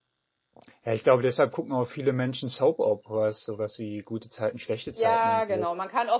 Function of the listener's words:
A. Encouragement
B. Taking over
B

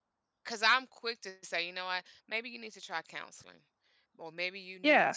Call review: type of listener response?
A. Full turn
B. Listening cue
B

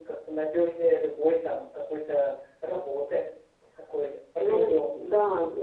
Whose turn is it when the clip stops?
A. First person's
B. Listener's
B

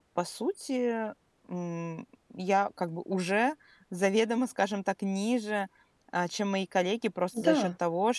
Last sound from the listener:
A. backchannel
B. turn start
A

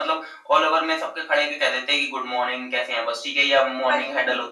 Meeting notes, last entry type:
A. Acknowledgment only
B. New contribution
A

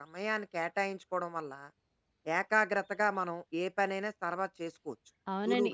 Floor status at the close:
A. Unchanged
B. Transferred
B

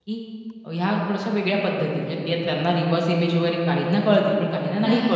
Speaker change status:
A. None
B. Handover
A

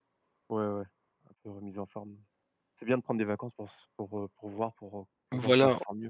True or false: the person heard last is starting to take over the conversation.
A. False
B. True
B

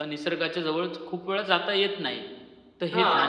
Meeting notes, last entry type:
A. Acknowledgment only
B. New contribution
A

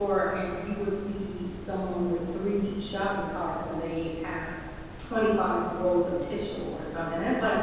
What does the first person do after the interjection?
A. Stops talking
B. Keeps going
B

